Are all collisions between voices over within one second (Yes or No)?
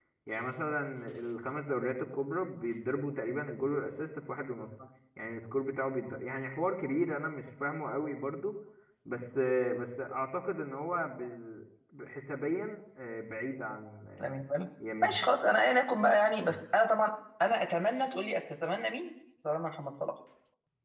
Yes